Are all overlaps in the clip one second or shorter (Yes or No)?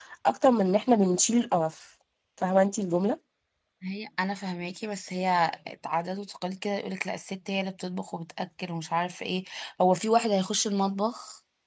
Yes